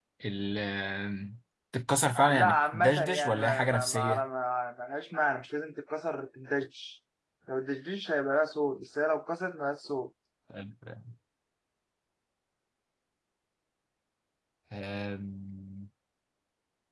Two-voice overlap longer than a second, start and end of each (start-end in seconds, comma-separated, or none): 2.3-4.2